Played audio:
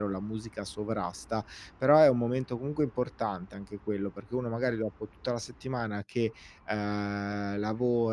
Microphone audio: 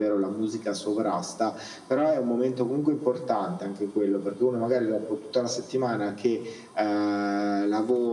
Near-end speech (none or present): none